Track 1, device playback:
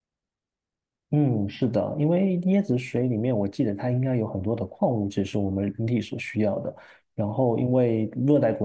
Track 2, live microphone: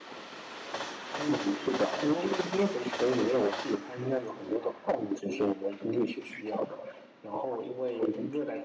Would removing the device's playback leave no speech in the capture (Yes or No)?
Yes